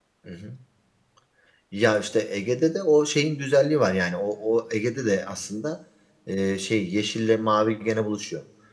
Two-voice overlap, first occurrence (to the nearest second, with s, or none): none